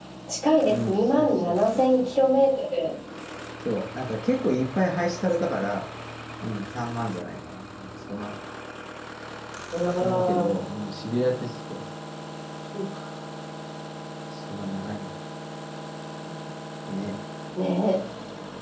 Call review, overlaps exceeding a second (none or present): present